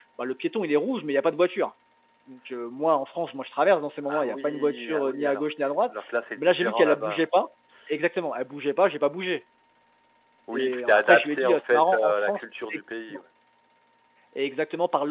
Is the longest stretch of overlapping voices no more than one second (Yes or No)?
No